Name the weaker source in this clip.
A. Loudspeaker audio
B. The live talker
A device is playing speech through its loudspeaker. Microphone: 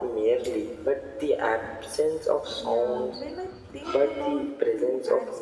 B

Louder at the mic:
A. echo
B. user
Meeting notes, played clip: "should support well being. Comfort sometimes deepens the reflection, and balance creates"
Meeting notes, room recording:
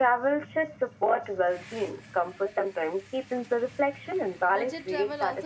A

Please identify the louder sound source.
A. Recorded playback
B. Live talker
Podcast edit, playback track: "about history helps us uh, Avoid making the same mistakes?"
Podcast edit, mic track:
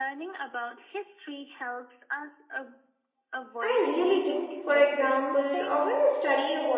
B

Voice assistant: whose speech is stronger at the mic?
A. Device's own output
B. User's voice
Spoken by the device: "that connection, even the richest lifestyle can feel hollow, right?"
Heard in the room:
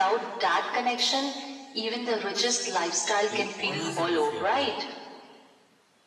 A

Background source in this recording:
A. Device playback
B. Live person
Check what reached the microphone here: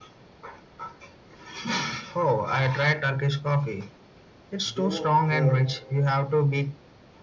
B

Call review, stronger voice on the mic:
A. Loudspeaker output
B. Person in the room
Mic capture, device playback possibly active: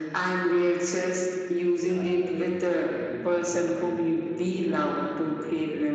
A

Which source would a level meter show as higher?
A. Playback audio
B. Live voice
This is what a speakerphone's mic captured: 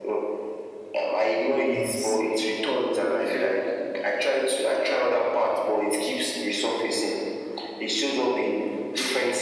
A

